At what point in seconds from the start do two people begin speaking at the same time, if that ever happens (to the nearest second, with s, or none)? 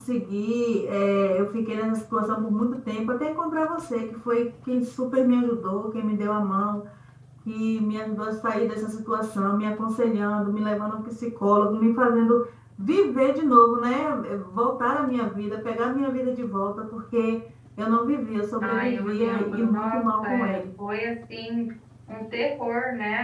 19 s